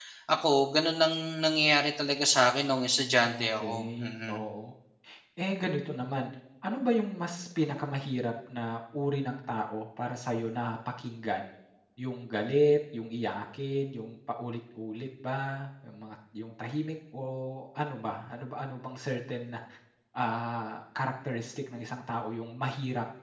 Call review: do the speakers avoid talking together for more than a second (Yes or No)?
No